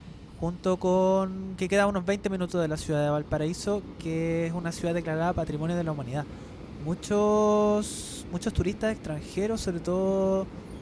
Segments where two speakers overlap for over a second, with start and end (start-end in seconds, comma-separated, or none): none